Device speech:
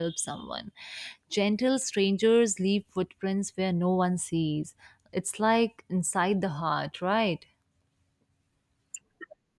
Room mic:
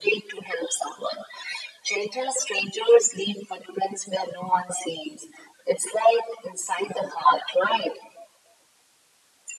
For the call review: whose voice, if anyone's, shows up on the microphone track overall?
echo only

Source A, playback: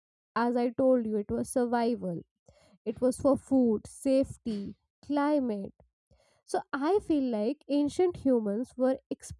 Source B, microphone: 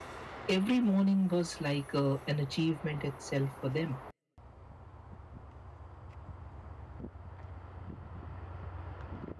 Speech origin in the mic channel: user only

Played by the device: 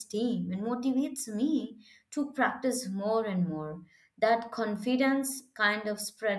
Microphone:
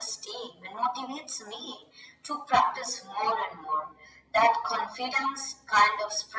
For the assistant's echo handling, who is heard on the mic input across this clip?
echo only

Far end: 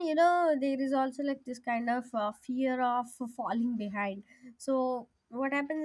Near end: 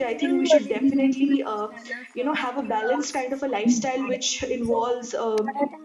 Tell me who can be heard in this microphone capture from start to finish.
both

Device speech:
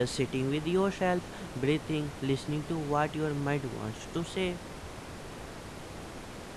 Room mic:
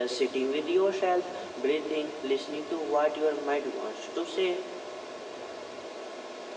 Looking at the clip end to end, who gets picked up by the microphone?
echo only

